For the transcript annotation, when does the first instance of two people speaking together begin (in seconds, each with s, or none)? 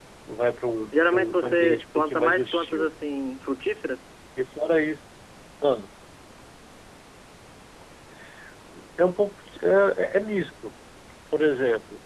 1.1 s